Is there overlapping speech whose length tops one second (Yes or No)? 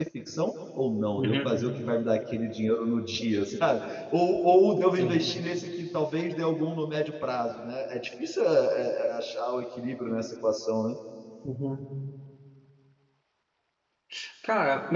No